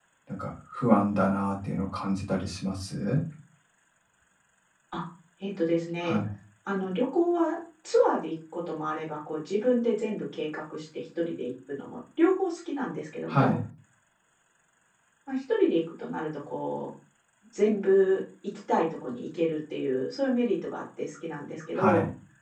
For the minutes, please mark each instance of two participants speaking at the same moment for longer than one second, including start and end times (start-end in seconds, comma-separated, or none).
none